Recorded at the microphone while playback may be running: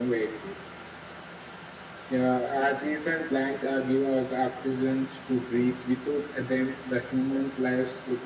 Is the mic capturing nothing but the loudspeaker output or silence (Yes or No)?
Yes